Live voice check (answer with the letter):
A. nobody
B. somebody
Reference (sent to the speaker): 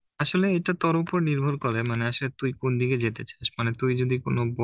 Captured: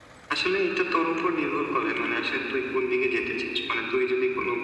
A